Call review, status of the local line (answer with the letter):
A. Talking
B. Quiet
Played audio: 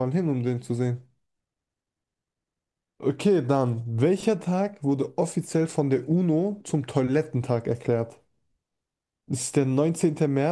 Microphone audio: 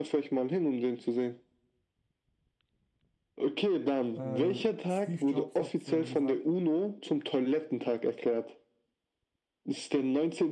A